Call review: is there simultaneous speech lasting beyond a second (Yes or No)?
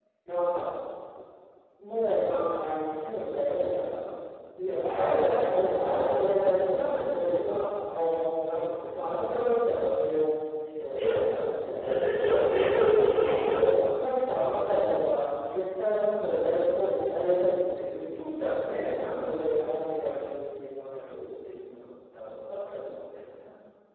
Yes